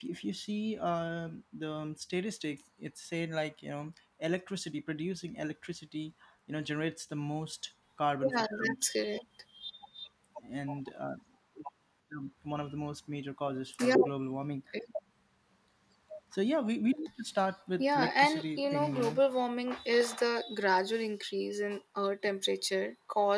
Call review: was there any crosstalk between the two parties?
Yes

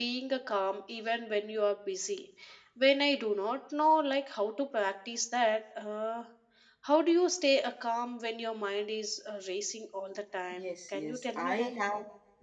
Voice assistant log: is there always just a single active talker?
No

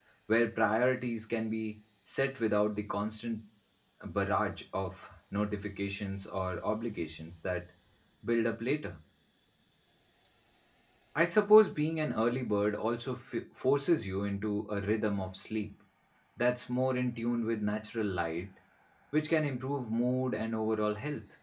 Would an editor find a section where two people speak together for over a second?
No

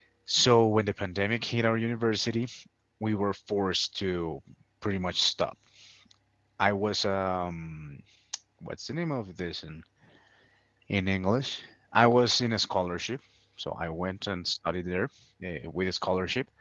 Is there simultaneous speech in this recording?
No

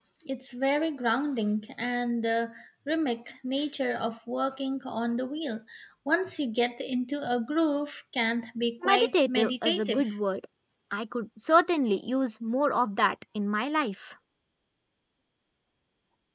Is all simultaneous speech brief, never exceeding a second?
No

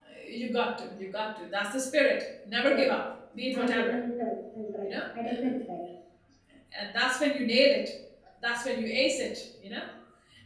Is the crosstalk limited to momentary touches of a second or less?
Yes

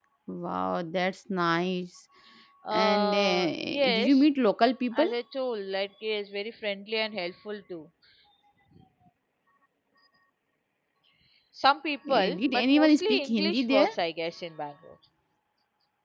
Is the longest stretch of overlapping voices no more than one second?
No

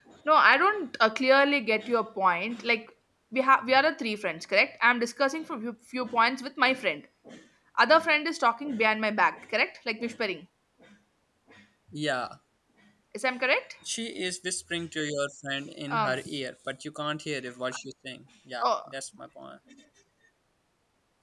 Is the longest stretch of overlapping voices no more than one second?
Yes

